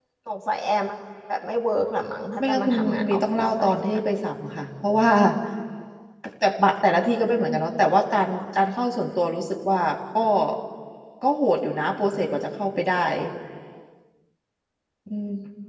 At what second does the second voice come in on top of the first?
2.4 s

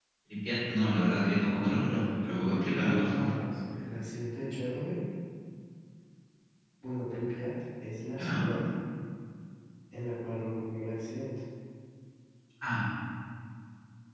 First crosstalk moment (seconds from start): 1.5 s

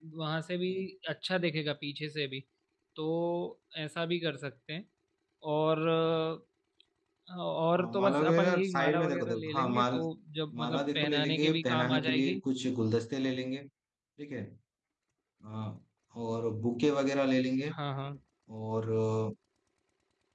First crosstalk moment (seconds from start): 7.7 s

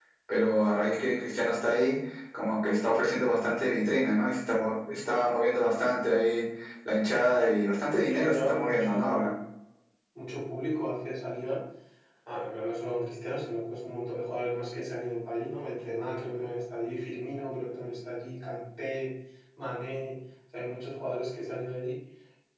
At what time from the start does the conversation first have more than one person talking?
8.0 s

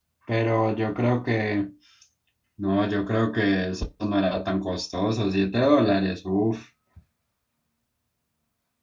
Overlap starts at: none

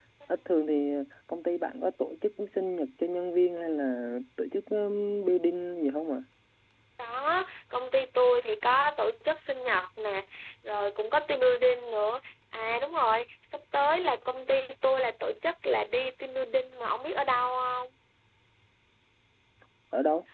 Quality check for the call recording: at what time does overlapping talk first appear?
none

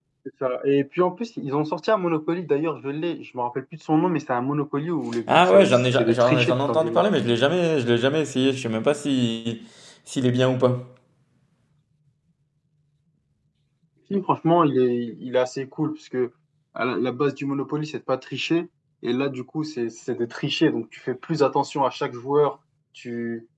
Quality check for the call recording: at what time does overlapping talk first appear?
5.3 s

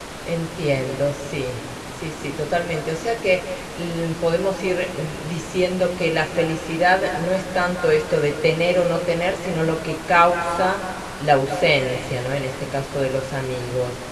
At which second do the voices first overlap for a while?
none

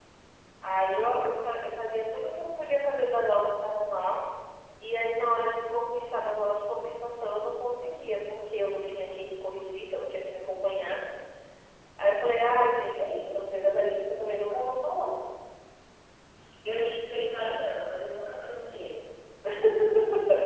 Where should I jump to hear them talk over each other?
none

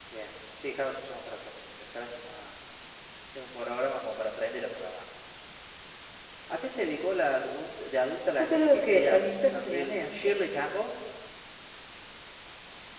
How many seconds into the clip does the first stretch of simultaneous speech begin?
8.4 s

